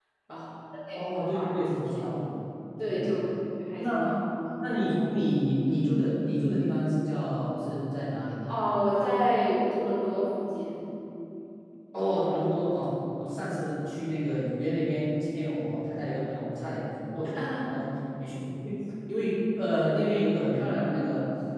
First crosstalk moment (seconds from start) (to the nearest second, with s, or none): 1 s